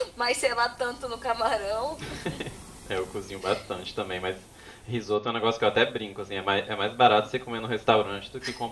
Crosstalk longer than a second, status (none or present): none